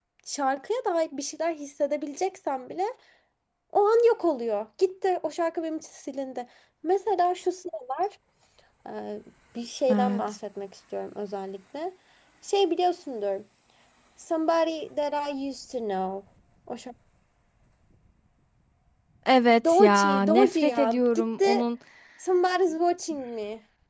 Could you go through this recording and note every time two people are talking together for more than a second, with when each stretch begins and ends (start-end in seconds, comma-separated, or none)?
19.7-21.5